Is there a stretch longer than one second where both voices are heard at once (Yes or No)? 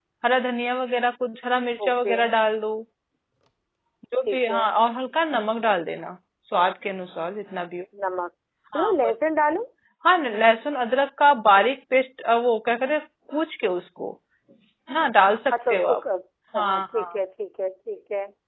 No